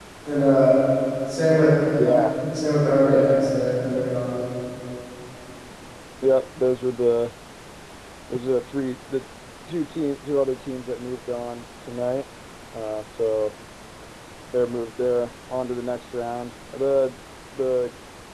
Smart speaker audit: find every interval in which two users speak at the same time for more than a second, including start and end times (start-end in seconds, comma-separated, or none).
none